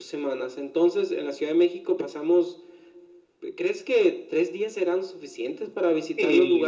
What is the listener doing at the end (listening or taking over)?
taking over